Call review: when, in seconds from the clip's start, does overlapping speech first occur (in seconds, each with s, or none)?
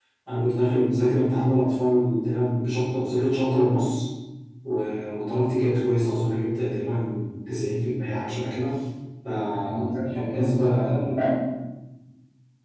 9.6 s